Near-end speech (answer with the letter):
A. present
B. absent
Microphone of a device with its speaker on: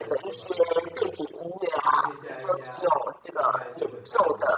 A